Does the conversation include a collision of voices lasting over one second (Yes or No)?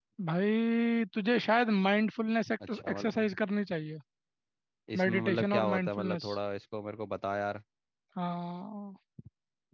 Yes